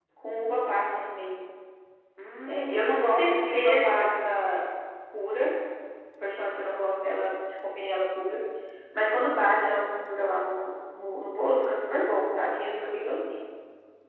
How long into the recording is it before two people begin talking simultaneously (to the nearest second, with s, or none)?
2 s